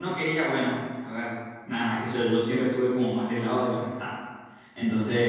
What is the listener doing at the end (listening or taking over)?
listening